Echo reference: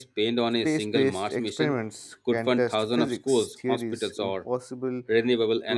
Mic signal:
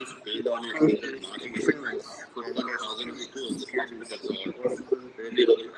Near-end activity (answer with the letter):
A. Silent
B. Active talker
A